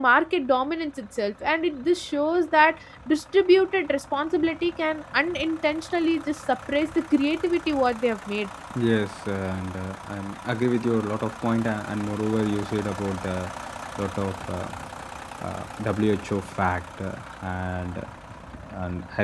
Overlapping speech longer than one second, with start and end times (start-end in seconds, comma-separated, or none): none